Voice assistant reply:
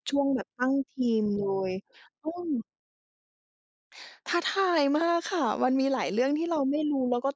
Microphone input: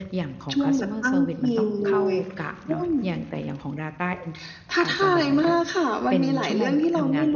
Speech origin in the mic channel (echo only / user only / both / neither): both